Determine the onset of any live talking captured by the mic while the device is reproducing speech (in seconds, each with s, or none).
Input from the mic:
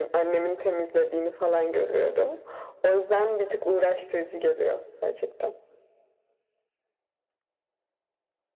none